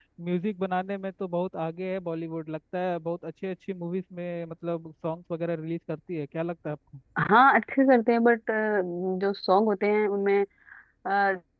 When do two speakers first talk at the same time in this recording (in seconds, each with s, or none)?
none